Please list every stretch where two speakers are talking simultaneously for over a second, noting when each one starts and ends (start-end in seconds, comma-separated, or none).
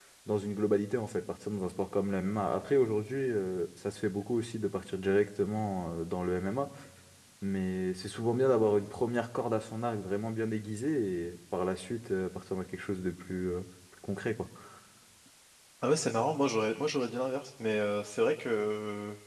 none